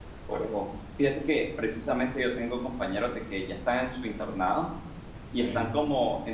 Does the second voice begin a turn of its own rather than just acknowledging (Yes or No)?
No